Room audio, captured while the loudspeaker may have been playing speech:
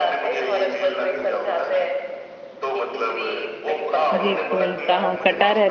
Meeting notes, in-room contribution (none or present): present